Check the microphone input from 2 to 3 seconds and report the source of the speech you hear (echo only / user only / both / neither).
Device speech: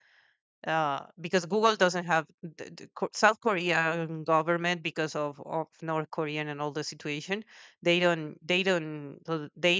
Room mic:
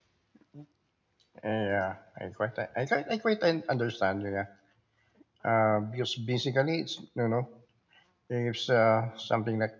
user only